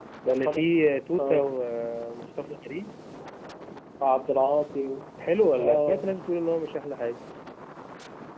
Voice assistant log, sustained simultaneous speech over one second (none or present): none